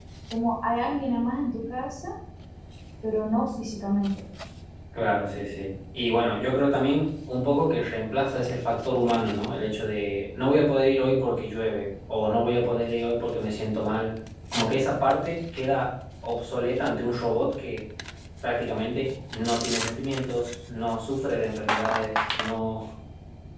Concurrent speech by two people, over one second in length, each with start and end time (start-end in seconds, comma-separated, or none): none